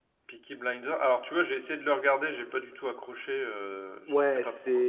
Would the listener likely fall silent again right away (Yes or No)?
No